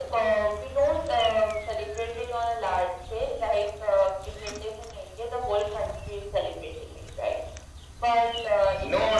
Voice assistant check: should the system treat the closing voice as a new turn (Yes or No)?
Yes